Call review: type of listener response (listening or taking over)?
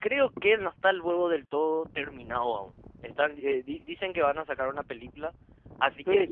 taking over